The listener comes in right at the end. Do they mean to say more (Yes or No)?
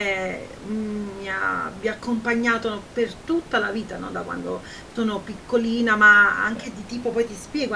No